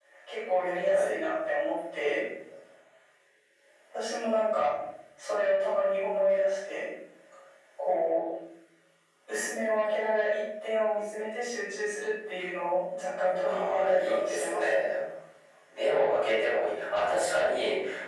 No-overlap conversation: No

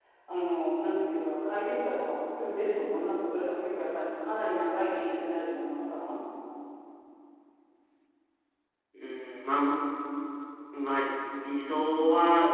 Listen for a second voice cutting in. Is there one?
No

